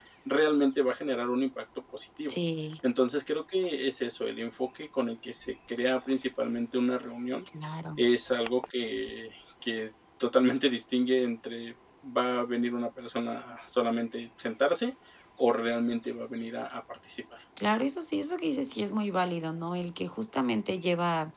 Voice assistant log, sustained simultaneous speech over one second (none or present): none